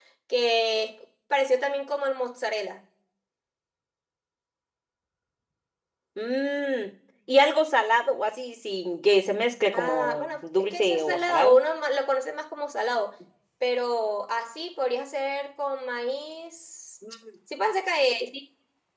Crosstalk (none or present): present